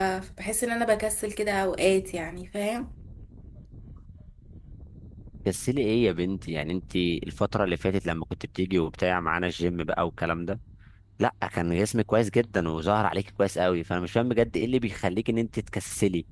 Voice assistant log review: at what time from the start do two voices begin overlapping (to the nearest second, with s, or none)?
none